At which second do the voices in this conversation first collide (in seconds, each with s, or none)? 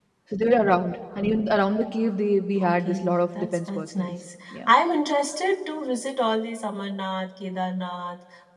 2.6 s